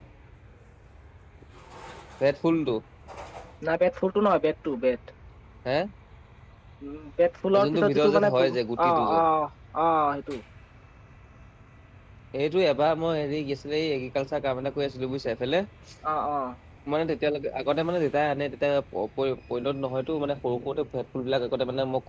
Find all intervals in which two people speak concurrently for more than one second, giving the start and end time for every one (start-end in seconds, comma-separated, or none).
7.6-9.2